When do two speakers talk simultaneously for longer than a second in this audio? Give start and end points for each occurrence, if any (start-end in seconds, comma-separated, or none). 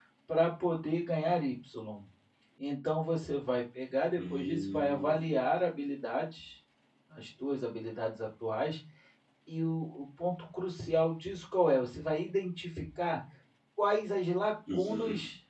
4.2-5.4